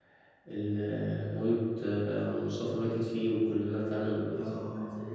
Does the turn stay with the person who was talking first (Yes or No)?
No